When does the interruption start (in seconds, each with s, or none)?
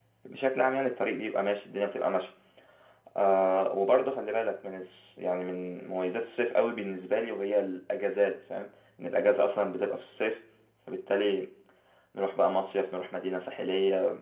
none